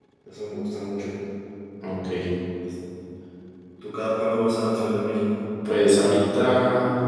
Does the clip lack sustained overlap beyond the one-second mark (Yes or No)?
Yes